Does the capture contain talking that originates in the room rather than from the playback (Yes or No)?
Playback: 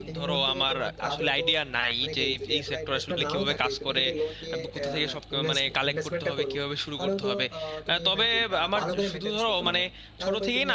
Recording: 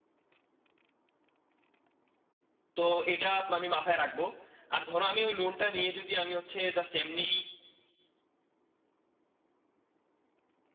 Yes